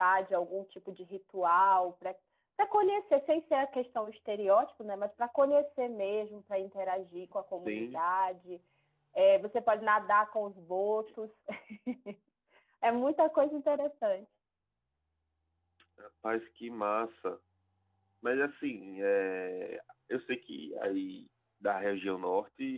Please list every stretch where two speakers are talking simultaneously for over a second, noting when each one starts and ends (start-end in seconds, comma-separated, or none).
none